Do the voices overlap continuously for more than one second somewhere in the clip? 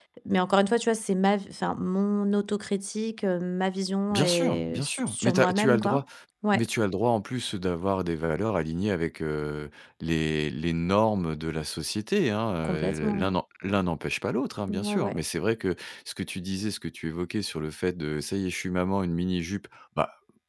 Yes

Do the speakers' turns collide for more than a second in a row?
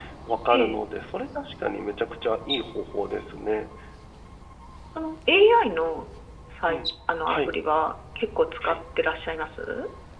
No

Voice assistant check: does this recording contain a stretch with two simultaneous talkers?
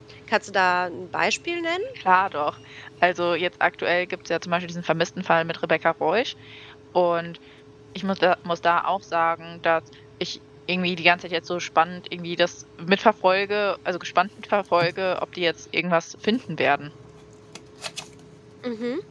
No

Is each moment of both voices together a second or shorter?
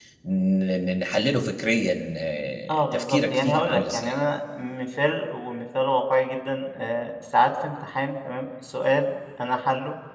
No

